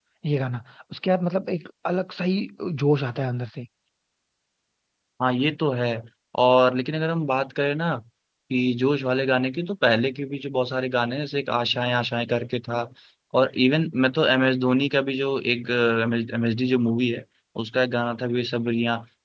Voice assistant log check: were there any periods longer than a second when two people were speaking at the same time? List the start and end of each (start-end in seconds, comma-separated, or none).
none